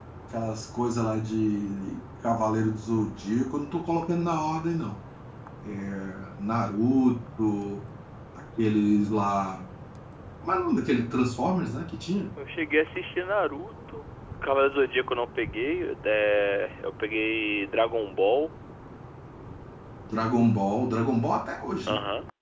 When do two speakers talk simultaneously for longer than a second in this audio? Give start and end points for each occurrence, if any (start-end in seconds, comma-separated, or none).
none